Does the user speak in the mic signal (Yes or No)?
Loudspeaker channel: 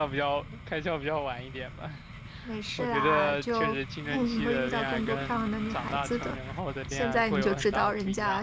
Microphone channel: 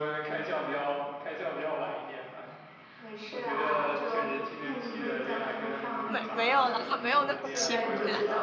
Yes